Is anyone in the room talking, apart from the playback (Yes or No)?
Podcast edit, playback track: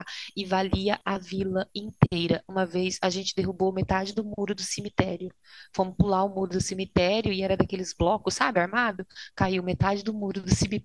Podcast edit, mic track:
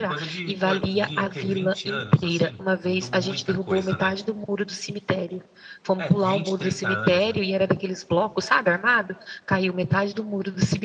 Yes